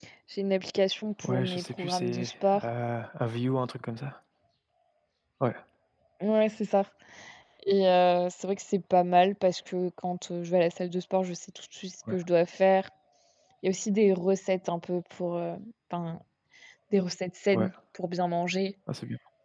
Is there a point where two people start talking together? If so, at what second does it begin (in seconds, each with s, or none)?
1.2 s